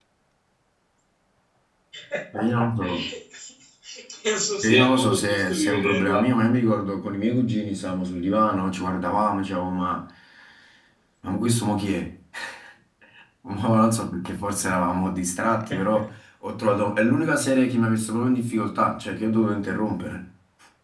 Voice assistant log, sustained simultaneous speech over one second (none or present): present